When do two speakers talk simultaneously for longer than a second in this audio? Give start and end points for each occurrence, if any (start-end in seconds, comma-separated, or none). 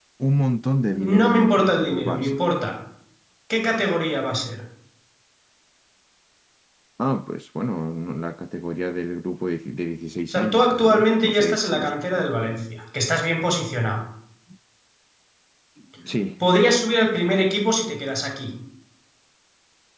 1.2-2.4, 10.3-11.9